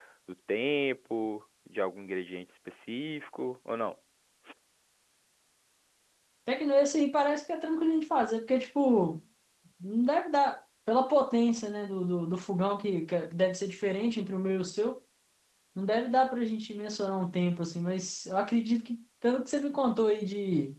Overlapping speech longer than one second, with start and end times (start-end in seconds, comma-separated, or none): none